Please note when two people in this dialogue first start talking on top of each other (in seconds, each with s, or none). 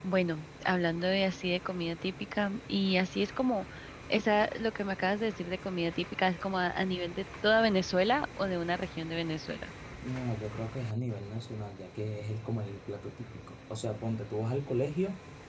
none